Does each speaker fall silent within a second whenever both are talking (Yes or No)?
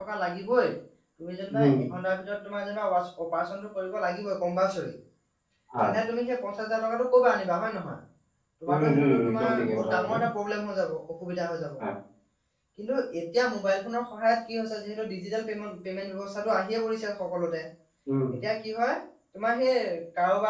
No